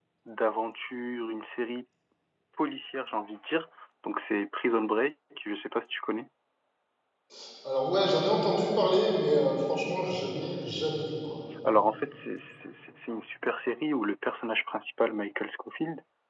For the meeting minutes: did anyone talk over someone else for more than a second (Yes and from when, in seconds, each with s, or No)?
No